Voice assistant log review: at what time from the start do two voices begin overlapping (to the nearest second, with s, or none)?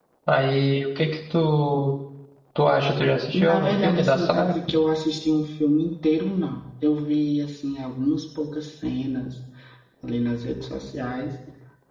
3 s